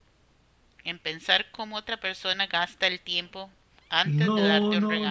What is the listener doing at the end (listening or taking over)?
taking over